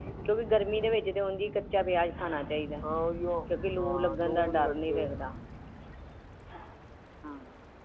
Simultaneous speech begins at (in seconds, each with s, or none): 3.8 s